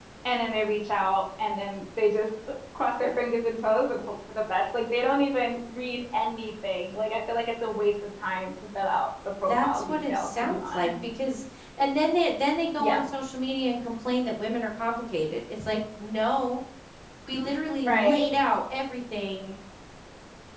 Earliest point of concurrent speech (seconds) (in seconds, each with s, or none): 9.5 s